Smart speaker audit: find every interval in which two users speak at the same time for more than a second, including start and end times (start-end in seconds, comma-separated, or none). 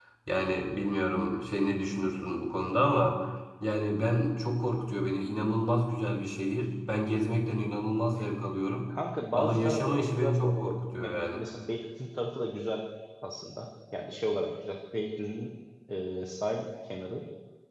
9.3-11.4